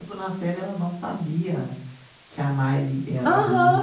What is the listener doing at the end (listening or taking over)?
taking over